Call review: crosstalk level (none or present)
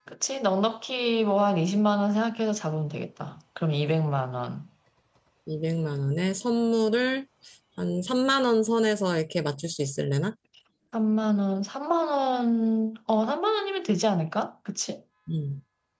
none